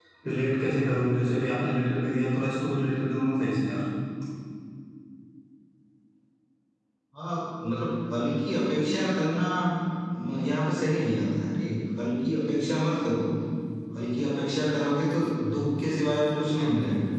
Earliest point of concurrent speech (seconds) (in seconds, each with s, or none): none